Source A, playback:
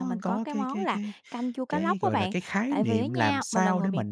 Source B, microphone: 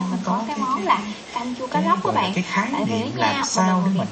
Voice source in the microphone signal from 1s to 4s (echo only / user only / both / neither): echo only